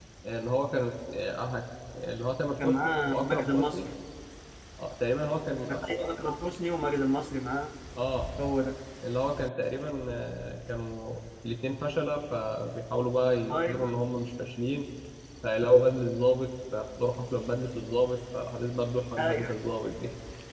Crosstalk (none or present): present